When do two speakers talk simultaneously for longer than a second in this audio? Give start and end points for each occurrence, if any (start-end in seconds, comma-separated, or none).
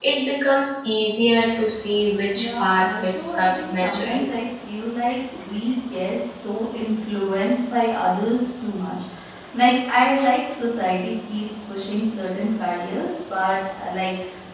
2.4-4.3